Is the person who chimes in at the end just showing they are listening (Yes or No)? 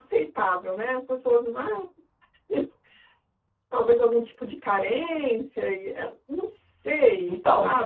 No